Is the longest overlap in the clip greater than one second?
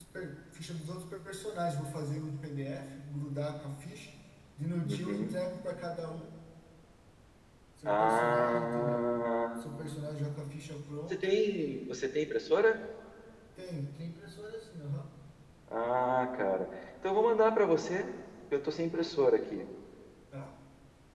Yes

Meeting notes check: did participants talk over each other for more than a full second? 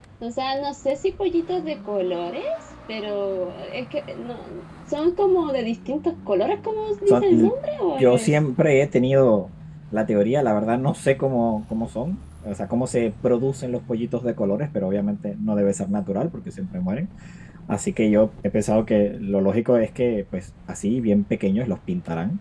No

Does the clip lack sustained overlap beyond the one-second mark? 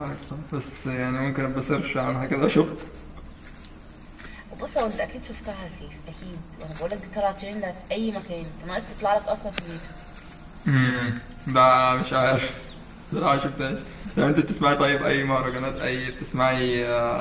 Yes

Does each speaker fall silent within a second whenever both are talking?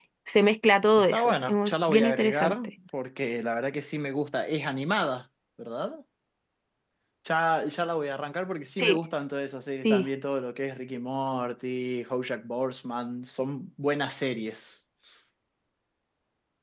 No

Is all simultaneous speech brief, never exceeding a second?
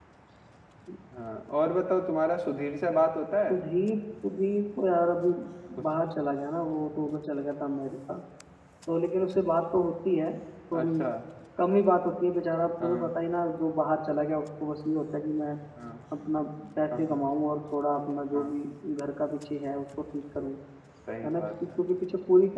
Yes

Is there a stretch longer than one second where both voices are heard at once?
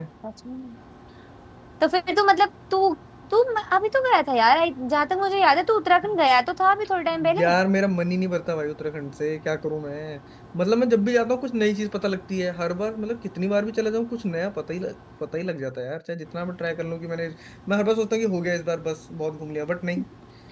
No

